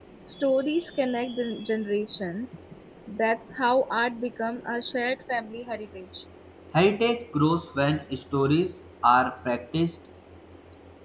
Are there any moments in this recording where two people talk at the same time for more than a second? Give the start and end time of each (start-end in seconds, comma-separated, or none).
none